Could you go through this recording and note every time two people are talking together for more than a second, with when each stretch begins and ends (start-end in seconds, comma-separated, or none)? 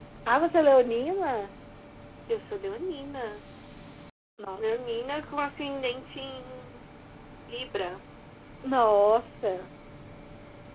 none